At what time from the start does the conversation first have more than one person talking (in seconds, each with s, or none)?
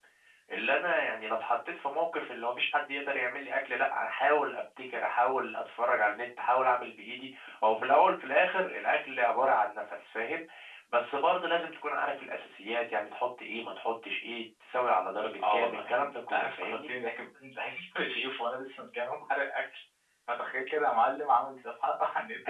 15.4 s